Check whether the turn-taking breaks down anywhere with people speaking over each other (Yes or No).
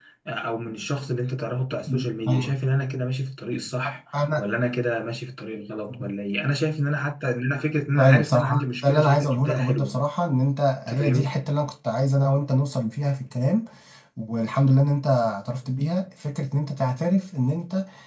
Yes